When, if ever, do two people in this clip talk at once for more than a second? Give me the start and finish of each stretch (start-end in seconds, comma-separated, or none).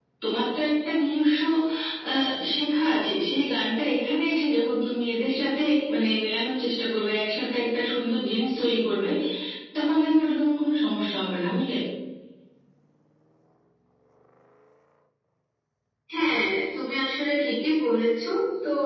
none